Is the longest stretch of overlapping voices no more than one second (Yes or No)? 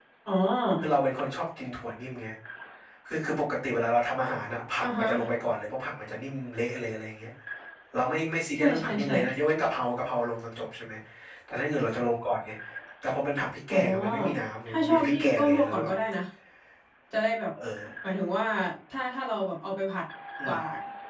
No